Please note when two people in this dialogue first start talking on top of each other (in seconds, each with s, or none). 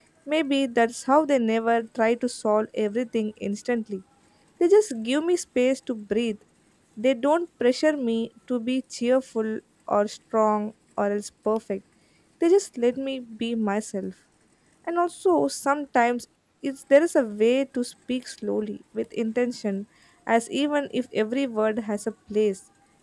none